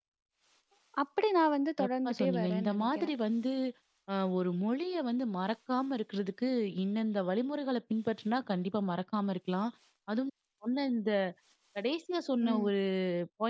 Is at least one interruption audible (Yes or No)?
Yes